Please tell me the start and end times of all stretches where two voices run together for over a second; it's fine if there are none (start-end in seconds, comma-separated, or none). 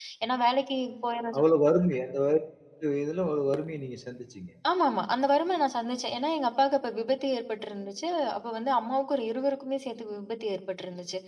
none